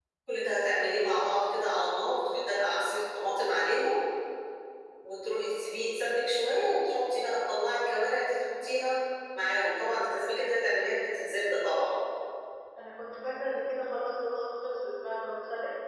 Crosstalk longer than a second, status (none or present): none